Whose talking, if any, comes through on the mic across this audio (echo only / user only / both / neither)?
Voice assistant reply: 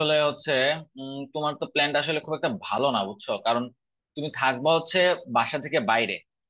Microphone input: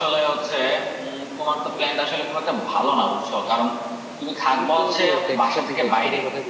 both